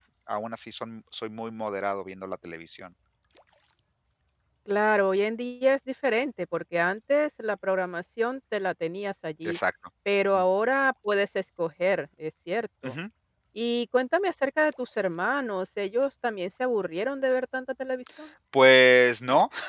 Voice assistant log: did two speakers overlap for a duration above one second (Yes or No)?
No